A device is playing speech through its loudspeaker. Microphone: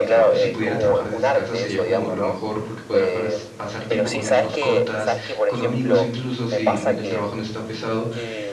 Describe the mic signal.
both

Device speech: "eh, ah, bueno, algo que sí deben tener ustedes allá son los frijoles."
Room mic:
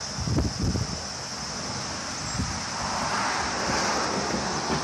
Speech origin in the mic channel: neither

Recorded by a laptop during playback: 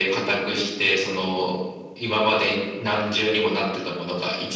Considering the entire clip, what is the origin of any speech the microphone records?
echo only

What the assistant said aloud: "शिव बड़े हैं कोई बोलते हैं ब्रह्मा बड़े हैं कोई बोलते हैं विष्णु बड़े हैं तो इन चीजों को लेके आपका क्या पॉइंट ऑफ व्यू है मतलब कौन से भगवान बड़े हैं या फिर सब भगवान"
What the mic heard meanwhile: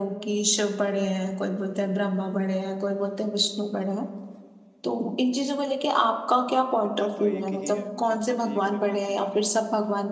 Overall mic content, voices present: both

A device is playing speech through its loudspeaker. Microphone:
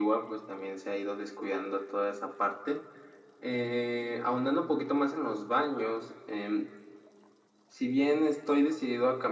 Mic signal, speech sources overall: echo only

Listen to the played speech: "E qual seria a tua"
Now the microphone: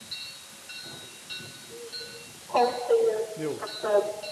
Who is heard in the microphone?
both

